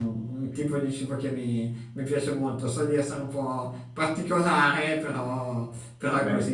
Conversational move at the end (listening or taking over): listening